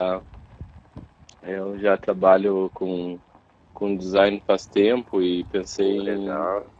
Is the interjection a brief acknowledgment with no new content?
Yes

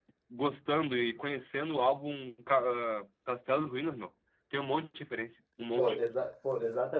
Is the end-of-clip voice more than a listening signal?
Yes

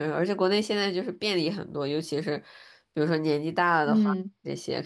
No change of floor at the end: Yes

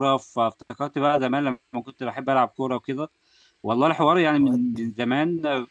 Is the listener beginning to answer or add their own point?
No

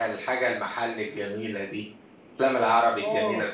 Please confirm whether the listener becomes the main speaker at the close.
Yes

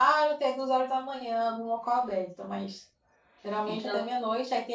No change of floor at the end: Yes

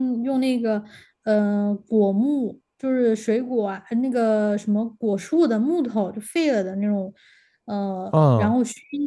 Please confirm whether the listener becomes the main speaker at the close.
No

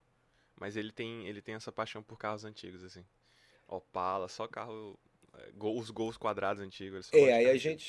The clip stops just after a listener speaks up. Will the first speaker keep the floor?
No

